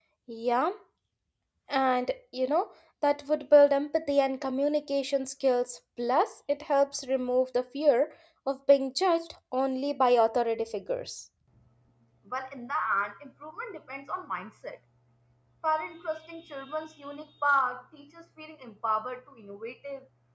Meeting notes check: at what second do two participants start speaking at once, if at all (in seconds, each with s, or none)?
none